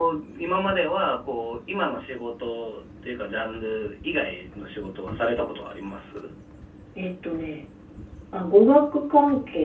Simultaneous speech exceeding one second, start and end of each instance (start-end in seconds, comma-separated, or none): none